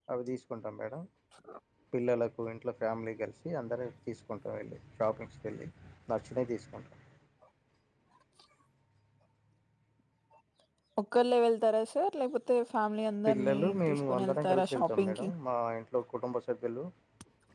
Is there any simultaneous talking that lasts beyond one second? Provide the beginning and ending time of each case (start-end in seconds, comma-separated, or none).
13.3-15.3